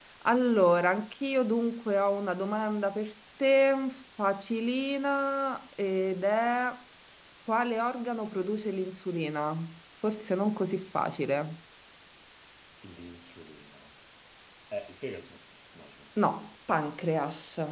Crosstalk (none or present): none